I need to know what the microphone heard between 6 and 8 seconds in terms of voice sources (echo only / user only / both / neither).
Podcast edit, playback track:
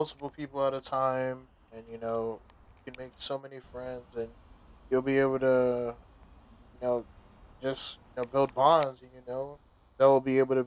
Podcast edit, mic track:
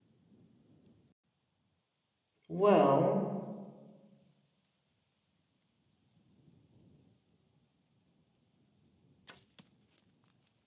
neither